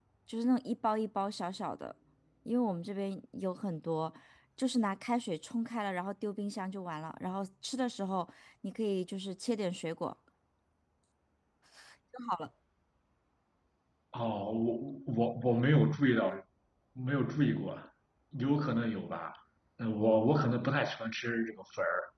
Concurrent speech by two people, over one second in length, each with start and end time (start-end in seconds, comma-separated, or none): none